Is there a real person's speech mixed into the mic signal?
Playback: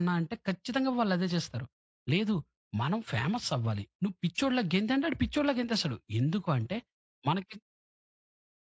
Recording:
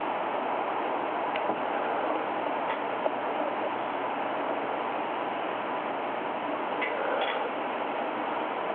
No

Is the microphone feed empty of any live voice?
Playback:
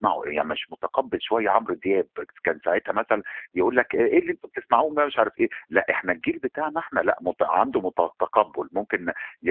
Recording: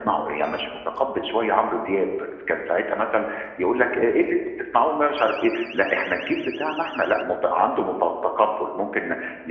Yes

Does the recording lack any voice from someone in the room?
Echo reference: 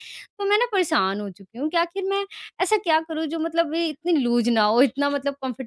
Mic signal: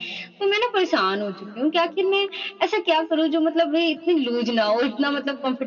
Yes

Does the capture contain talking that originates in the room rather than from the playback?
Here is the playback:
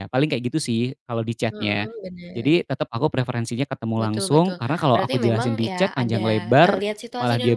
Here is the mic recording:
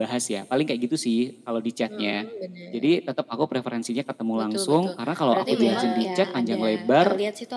Yes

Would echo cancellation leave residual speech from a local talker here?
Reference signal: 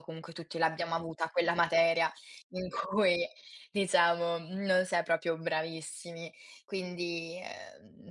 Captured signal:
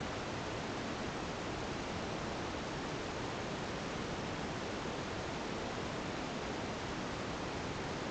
No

